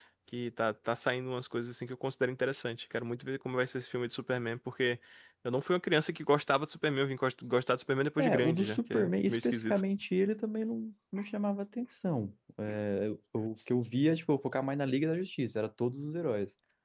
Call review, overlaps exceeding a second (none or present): present